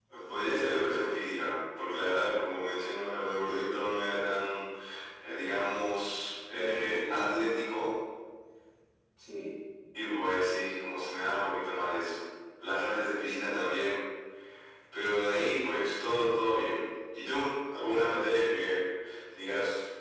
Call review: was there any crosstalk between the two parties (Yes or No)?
Yes